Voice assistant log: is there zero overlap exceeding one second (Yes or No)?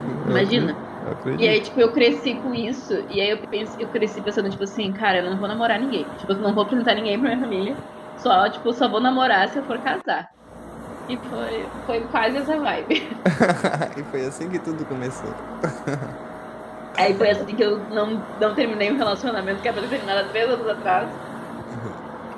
Yes